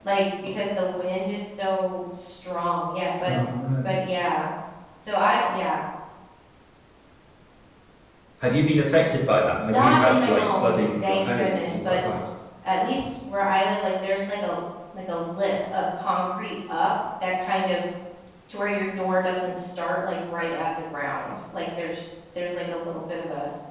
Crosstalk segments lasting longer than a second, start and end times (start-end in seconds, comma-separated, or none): 9.5-12.0